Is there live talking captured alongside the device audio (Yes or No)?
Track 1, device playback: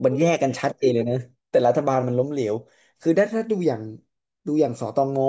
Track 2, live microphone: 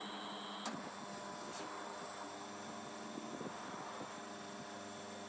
No